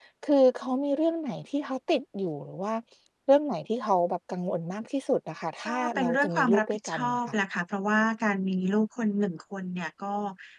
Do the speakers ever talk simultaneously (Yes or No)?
Yes